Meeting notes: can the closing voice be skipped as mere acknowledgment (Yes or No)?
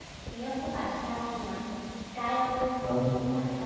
No